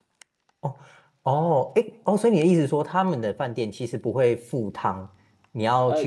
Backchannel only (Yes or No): No